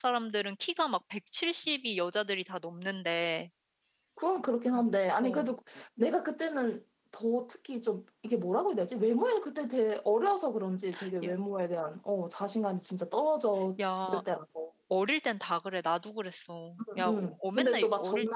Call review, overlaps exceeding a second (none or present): present